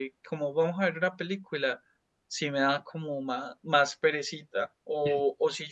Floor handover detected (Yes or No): No